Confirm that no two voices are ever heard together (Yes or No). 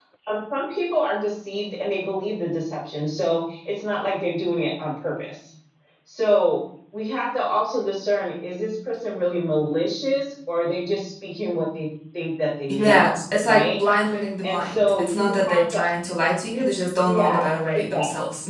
No